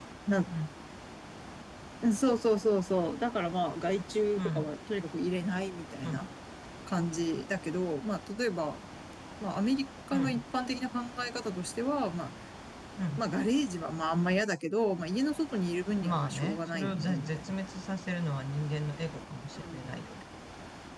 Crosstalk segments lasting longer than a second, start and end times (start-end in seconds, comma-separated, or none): 16.0-17.6